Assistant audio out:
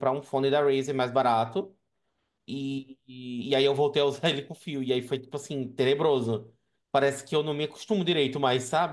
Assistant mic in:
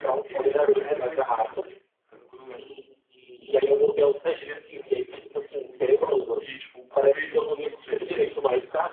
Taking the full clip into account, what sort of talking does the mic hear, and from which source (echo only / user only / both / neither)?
both